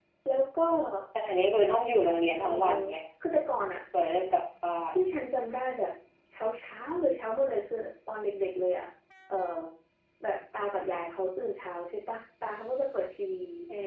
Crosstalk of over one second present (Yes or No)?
No